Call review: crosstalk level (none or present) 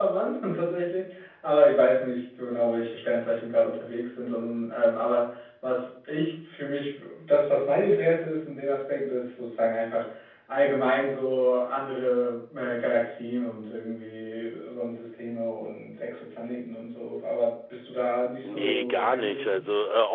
present